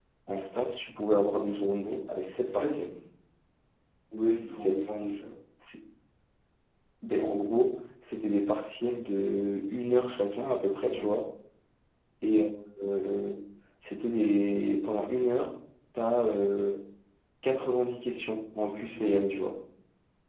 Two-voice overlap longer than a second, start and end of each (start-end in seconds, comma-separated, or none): none